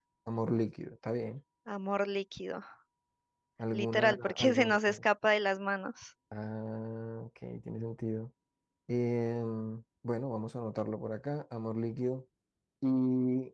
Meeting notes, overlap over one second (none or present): present